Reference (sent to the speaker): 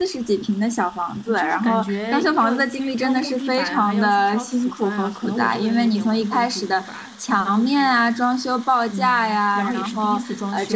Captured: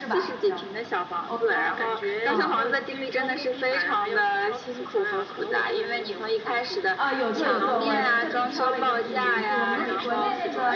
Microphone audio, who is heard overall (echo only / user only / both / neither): both